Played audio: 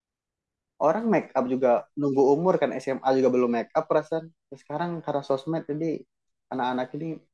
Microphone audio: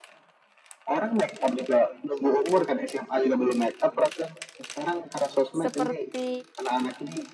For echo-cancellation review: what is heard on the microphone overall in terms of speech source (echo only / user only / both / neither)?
both